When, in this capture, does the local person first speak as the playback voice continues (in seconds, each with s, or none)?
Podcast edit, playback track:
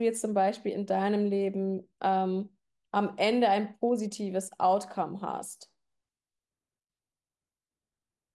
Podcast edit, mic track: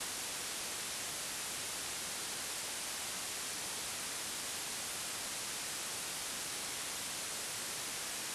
none